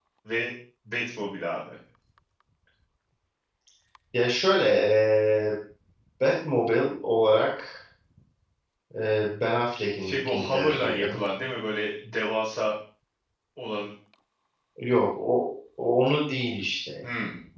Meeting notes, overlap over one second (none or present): present